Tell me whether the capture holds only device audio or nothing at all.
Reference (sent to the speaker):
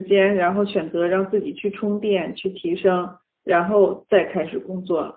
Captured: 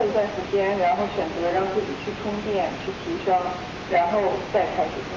Yes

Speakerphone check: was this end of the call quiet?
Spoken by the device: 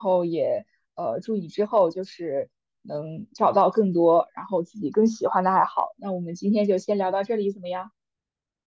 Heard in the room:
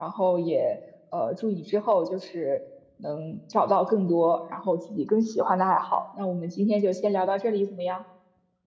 Yes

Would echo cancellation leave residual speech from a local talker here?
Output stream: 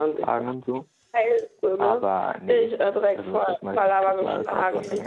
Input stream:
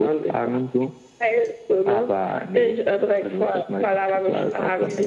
No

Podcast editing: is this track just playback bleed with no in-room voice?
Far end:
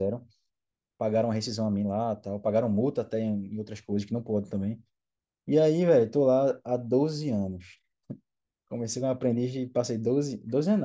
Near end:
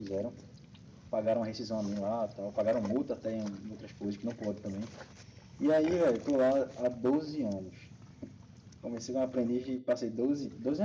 Yes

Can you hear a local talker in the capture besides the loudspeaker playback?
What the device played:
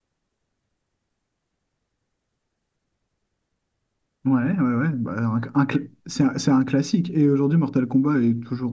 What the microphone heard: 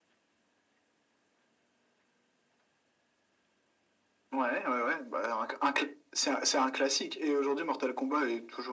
No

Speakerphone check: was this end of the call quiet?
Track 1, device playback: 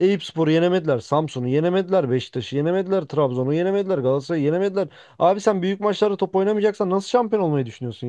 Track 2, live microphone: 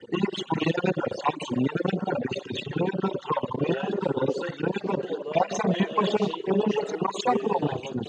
No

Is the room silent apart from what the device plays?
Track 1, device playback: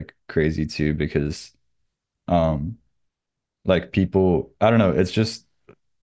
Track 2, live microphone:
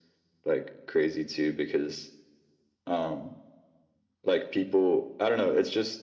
Yes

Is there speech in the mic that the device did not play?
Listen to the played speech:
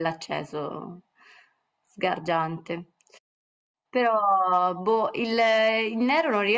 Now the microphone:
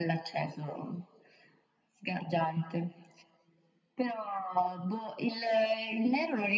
No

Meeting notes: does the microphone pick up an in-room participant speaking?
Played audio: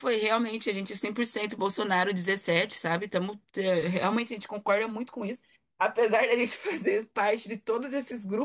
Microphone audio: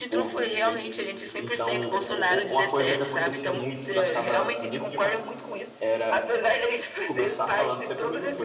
Yes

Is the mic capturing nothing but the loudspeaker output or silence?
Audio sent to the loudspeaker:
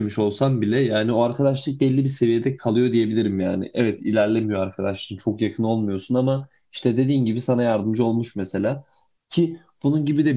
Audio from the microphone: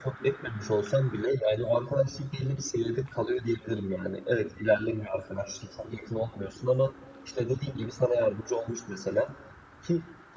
Yes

